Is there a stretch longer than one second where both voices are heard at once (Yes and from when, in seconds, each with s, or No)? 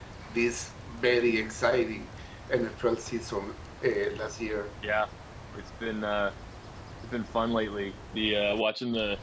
No